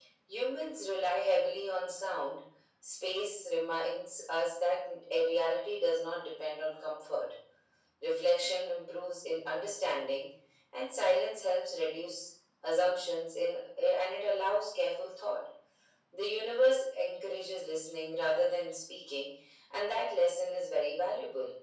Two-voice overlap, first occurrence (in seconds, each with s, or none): none